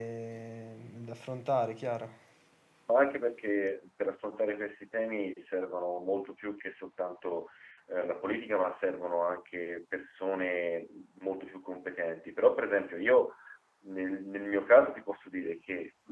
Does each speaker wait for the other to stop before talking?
Yes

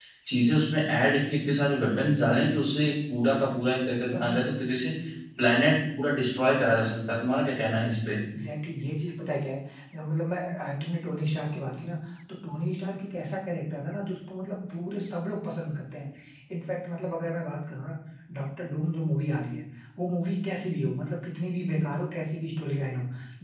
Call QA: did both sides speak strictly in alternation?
Yes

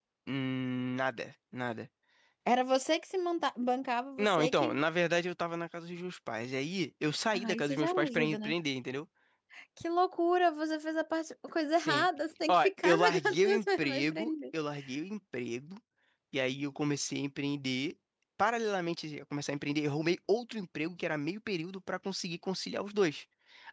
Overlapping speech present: Yes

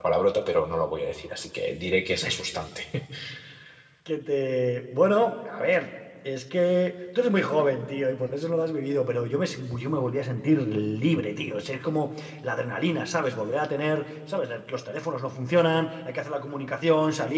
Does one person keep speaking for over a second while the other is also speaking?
No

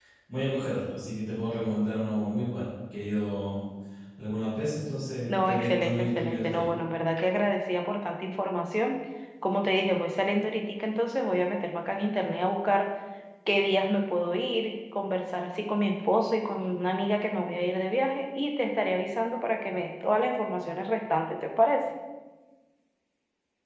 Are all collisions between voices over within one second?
No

